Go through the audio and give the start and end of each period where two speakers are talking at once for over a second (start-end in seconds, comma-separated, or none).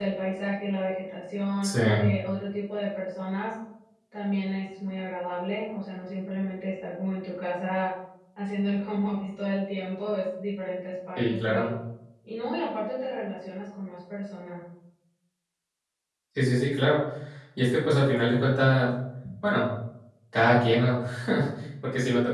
none